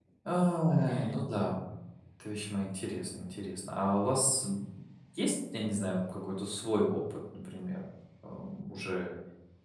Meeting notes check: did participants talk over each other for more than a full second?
No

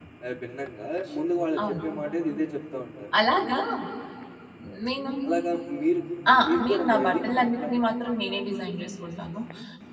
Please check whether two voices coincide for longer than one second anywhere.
Yes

